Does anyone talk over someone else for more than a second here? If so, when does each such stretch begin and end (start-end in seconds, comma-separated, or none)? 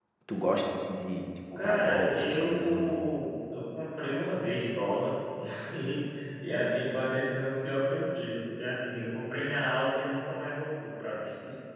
1.6-3.0